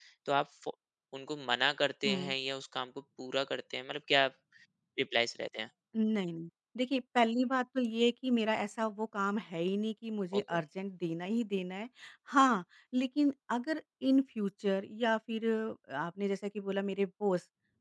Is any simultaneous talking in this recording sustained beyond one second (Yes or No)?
No